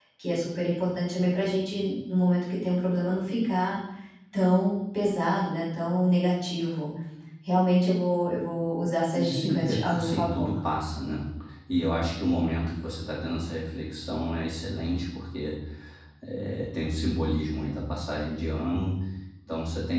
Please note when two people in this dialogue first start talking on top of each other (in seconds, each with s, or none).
9.1 s